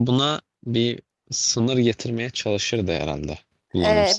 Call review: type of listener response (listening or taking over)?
taking over